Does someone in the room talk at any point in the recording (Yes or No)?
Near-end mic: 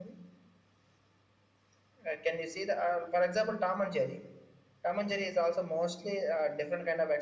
No